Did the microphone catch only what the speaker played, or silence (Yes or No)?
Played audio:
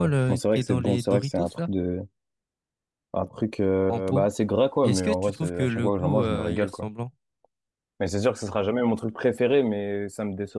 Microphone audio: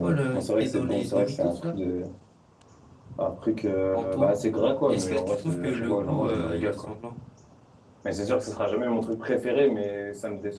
Yes